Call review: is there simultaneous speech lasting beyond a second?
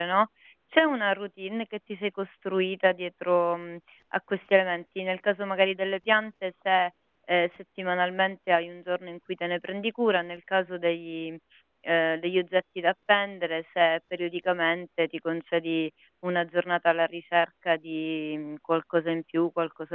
No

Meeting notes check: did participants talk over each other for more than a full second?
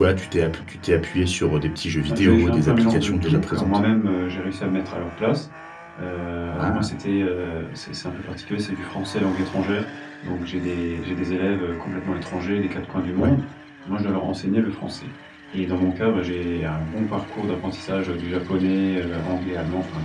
Yes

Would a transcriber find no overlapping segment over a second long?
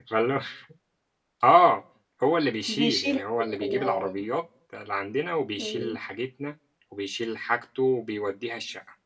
No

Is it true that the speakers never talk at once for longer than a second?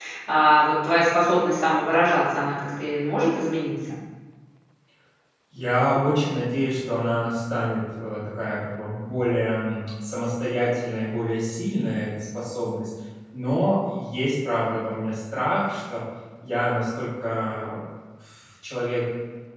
Yes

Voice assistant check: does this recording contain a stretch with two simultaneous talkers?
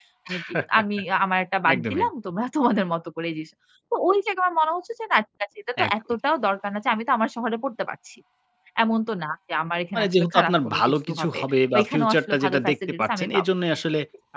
Yes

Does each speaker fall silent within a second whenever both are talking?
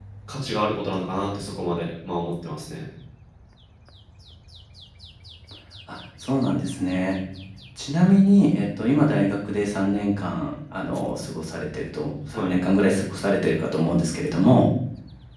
Yes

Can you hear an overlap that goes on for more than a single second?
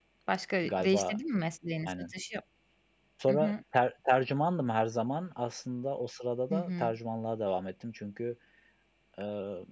No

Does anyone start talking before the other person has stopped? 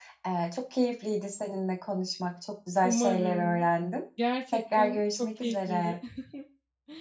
Yes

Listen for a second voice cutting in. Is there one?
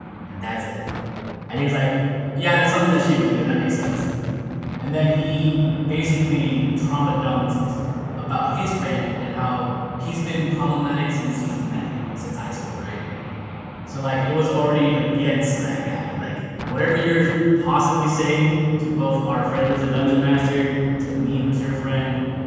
No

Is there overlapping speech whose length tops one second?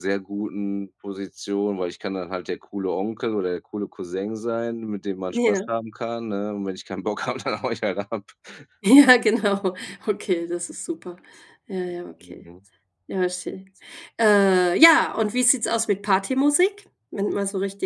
No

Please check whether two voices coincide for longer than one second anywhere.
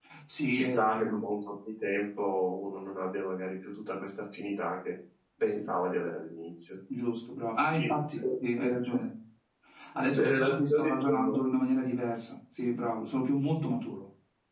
Yes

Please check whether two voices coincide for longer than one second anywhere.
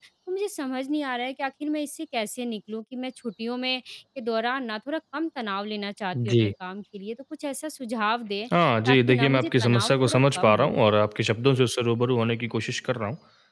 Yes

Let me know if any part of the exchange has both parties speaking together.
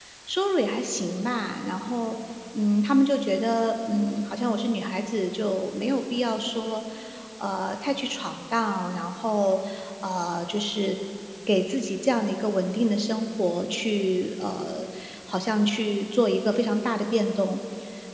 No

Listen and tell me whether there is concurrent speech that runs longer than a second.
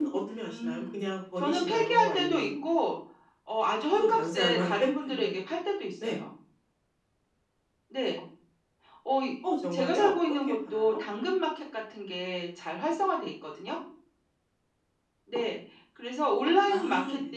Yes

